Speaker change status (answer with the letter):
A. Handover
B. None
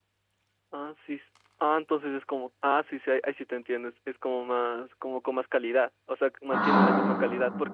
B